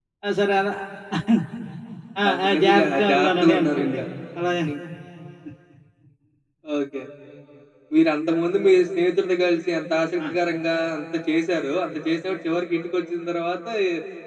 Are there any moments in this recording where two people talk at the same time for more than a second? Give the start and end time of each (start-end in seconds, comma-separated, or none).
2.3-4.0